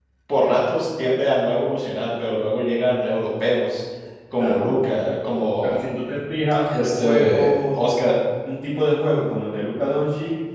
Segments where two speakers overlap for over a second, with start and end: 6.8-8.0

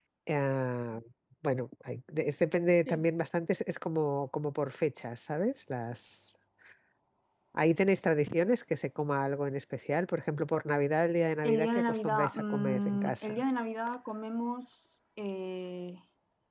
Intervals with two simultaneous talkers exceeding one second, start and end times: 11.4-13.4

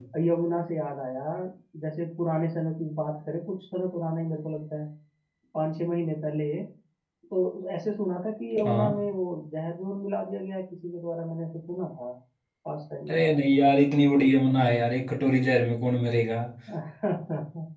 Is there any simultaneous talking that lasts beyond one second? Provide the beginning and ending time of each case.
none

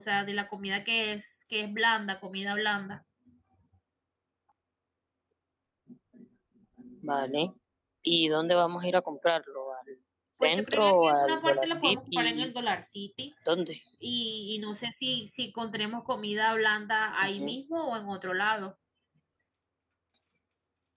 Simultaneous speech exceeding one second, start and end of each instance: 10.4-12.5

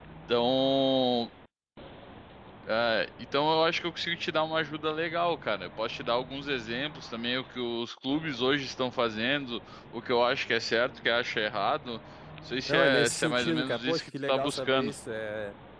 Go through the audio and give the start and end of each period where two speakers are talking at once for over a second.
12.7-14.9

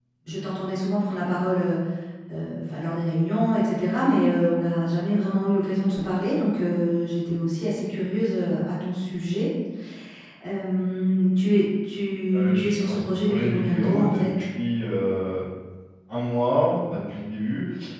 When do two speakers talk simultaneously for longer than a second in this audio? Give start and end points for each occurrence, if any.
12.3-14.2

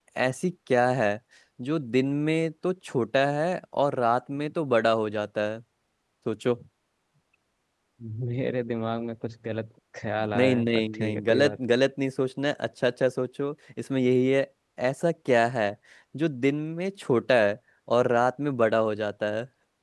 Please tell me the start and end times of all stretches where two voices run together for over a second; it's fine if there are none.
10.3-11.6

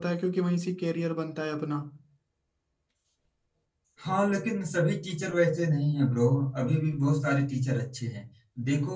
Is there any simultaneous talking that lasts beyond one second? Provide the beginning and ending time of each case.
none

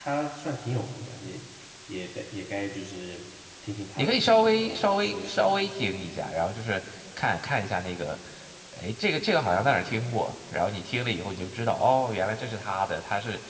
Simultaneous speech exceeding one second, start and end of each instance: 4.0-5.7

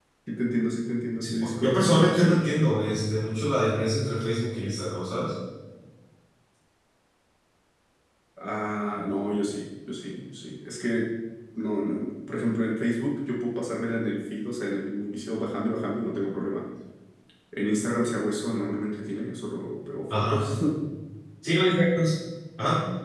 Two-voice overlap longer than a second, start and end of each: 1.2-2.6

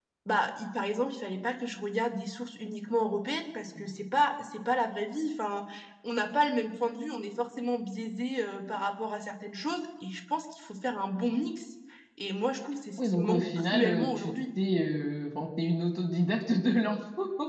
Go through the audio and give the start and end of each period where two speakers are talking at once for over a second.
13.0-14.3

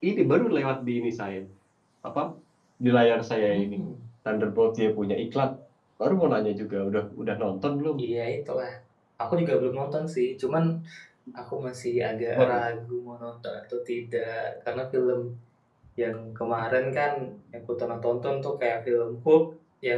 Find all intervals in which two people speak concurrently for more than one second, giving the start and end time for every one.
none

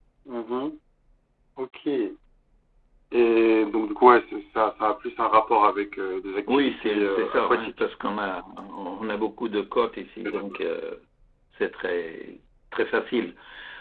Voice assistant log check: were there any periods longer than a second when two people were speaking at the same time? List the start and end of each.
6.5-7.7

